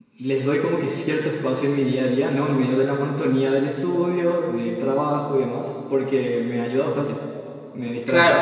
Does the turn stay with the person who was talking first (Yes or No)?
No